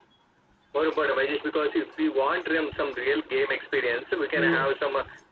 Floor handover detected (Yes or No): No